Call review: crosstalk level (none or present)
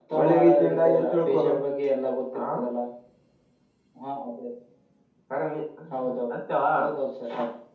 present